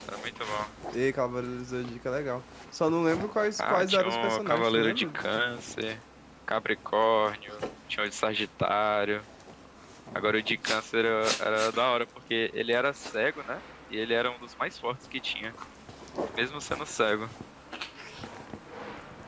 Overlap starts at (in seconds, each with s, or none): 3.6 s